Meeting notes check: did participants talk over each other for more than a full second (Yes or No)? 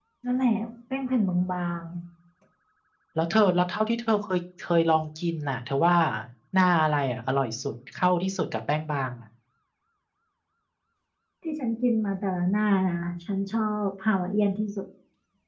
No